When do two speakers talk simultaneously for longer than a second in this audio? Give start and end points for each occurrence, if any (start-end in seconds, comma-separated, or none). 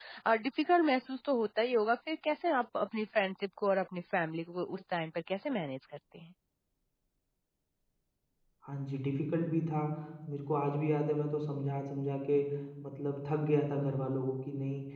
none